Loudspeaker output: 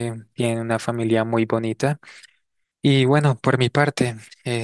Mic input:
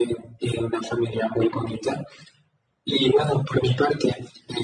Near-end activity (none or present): none